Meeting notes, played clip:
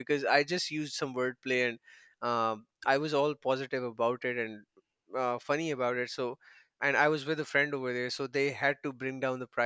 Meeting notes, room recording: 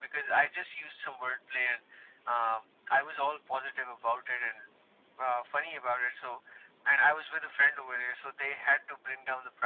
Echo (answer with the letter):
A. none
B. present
B